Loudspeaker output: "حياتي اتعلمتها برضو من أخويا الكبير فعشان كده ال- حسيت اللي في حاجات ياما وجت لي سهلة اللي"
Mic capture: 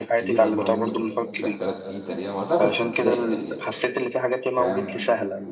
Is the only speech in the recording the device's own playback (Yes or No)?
No